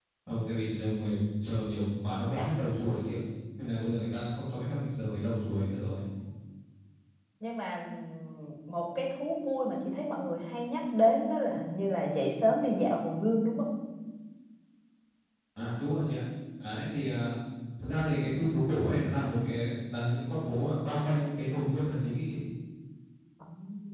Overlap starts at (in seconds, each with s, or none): none